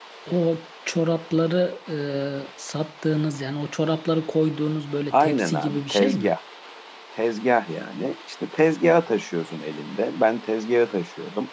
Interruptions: present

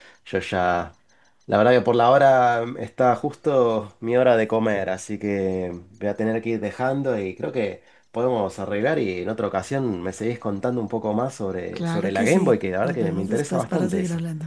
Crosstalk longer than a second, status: present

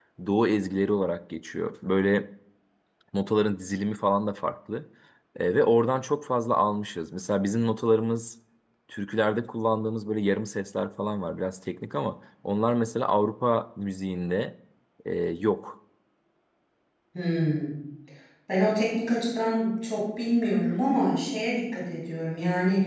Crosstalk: none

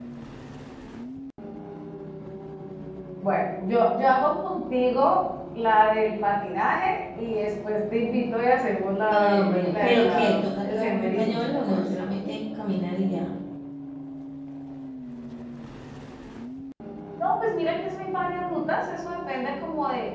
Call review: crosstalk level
present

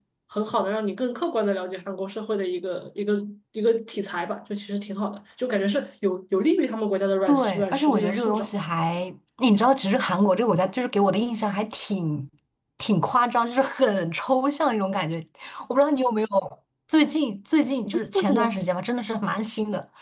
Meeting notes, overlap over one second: present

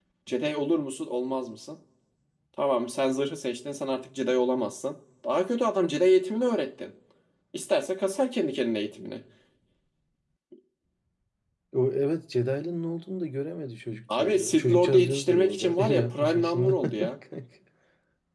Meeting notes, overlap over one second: present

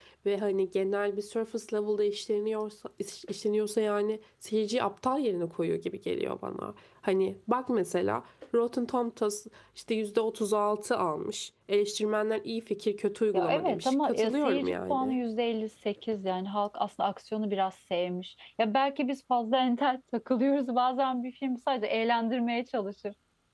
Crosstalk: present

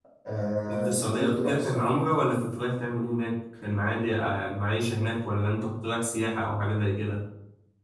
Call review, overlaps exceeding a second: present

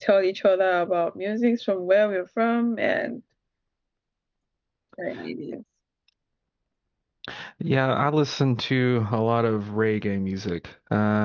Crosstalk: none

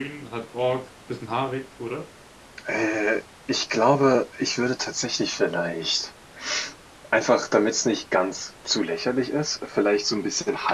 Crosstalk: none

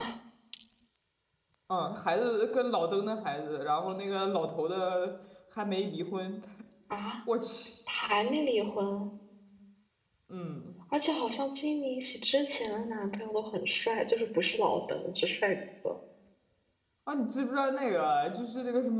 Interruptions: none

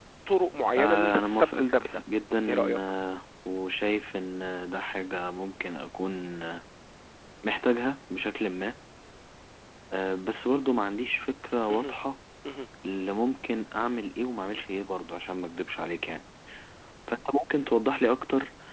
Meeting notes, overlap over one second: present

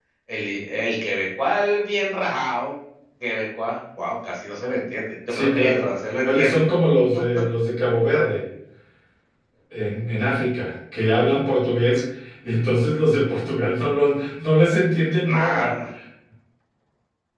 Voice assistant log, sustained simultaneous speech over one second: present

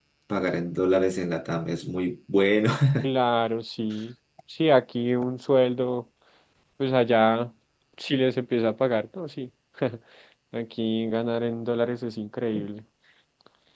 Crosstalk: none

